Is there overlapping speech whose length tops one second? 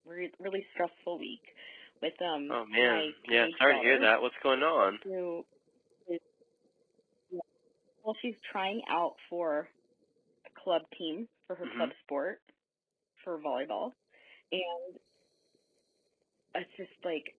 Yes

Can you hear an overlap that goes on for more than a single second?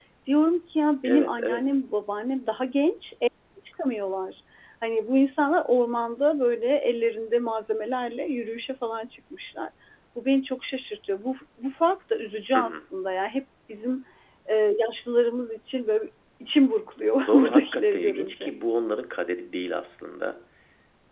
Yes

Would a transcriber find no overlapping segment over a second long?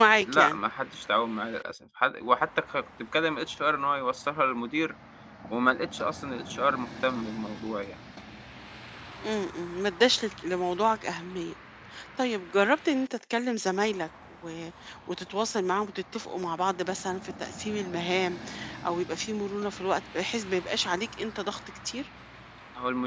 Yes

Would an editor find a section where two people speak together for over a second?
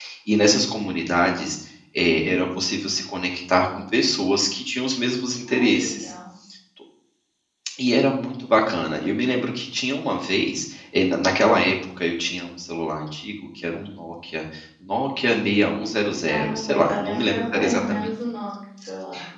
Yes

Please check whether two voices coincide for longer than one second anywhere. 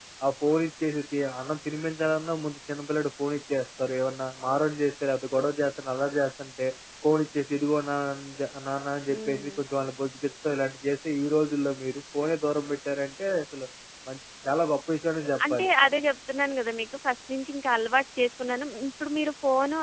No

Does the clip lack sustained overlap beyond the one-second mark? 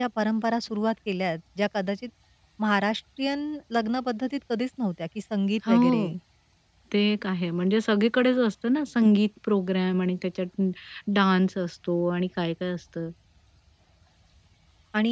Yes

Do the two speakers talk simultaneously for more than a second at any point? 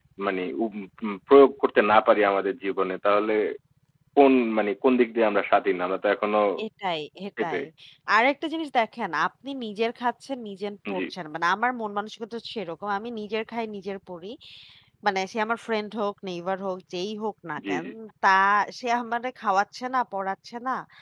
No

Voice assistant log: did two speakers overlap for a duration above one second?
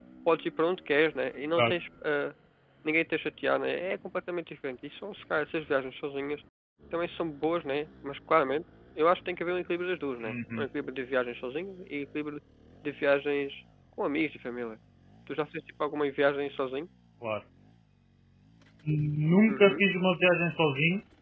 No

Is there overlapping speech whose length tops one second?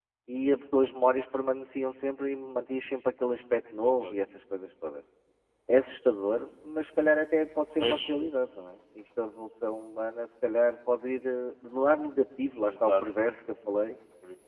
No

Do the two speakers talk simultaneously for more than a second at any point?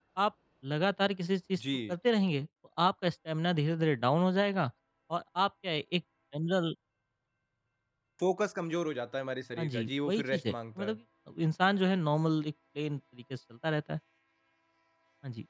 Yes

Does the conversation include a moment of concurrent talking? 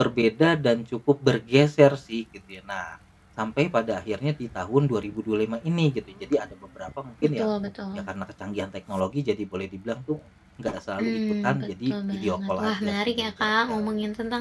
Yes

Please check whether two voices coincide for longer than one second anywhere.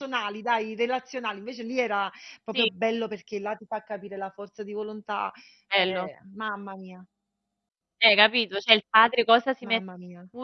No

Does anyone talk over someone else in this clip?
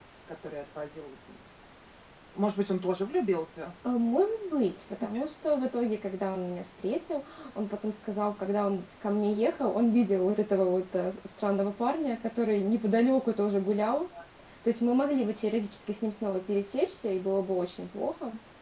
No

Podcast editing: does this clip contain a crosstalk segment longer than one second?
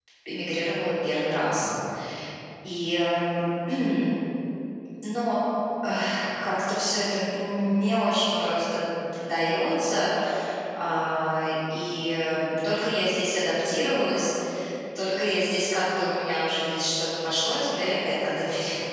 No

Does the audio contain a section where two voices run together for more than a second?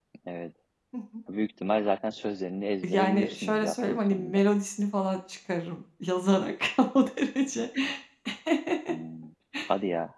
Yes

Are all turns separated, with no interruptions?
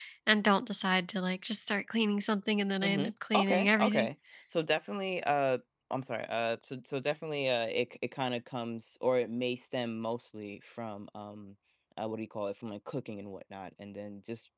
No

